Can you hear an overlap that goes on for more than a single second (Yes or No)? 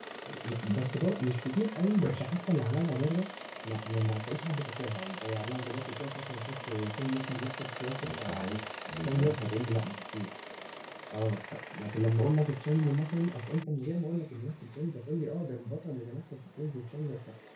No